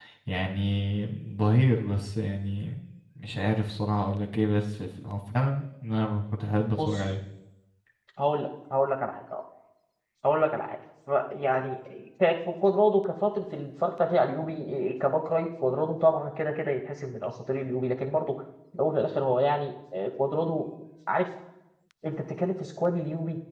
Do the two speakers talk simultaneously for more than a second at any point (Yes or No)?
No